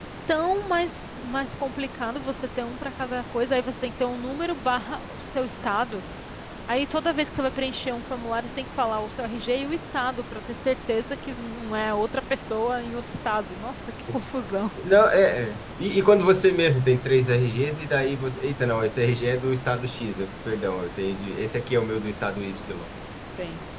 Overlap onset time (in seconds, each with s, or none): none